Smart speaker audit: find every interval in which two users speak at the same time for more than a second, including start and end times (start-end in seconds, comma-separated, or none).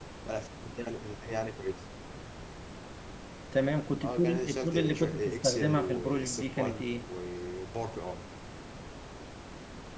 4.0-6.9